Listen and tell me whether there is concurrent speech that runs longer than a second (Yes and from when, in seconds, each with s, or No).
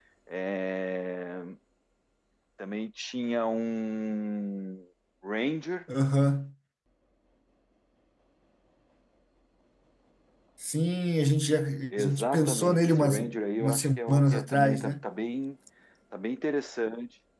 Yes, from 12.0 s